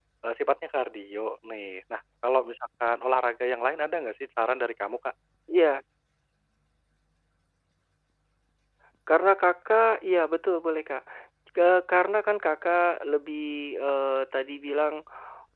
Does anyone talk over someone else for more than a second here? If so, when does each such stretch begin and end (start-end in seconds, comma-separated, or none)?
none